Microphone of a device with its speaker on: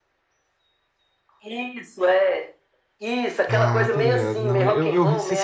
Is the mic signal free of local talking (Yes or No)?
No